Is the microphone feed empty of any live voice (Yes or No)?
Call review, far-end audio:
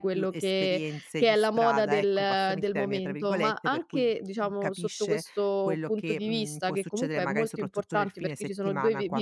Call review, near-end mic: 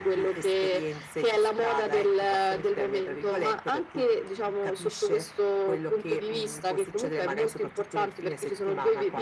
Yes